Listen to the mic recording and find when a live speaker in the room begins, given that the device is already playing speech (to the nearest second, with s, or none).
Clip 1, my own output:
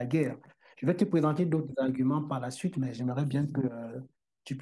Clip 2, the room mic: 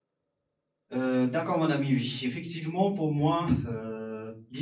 1 s